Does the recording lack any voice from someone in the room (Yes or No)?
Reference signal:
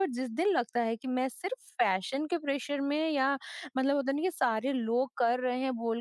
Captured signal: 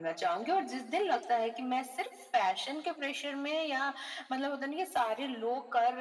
Yes